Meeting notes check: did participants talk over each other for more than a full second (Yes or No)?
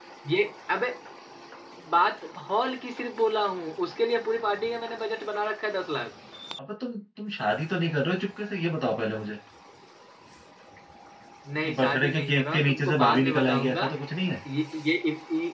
Yes